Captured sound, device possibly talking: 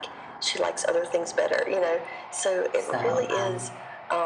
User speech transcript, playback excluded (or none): so, um,